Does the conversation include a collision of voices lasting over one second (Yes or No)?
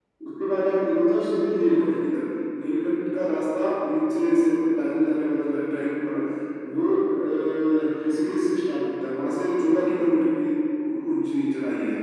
No